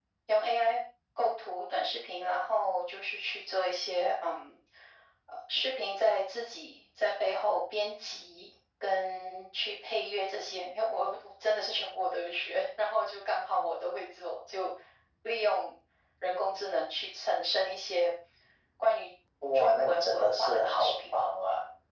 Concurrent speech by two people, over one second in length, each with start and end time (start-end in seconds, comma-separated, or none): 19.5-21.2